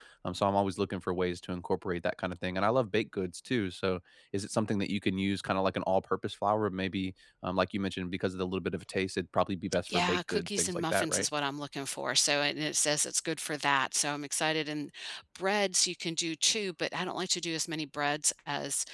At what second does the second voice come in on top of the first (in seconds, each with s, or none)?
9.9 s